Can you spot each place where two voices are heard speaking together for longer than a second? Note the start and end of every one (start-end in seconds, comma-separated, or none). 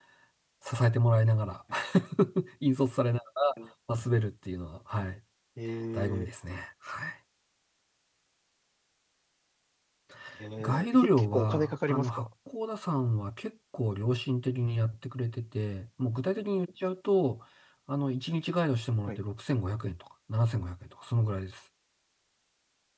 10.6-12.3